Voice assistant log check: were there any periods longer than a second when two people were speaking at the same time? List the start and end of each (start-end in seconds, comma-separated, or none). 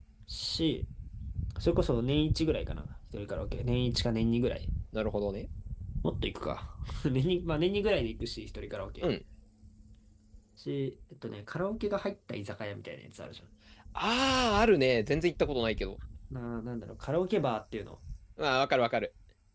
none